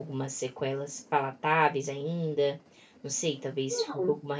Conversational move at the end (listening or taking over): listening